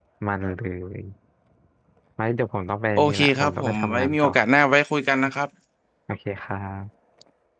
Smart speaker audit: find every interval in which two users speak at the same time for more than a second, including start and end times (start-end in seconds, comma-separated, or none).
3.0-4.3